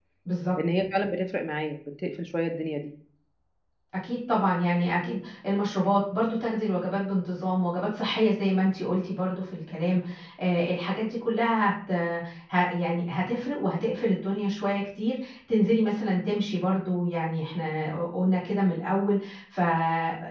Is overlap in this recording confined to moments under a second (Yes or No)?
Yes